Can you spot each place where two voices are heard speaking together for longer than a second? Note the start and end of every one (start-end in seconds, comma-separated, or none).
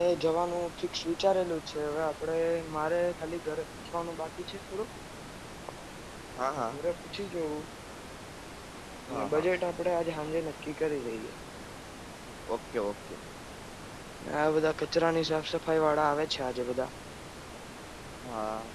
none